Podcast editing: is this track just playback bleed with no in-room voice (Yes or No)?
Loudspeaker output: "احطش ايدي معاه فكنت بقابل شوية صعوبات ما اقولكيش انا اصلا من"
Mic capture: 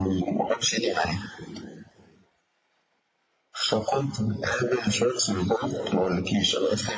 Yes